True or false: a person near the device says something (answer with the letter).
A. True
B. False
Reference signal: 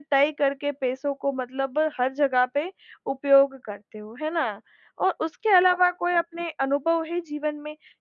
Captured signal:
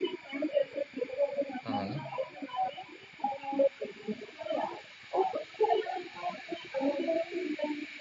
A